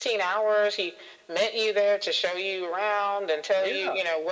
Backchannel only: Yes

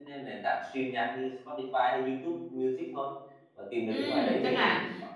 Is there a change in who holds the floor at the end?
Yes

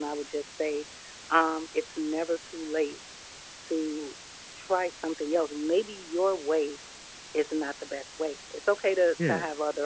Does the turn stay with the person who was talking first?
Yes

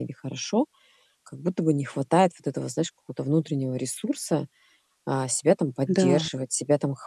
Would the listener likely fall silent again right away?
Yes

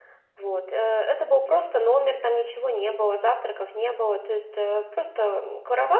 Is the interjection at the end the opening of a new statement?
No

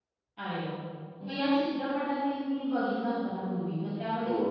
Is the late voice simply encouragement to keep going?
Yes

